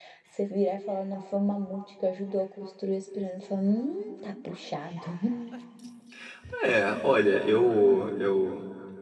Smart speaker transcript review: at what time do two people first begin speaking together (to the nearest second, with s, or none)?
none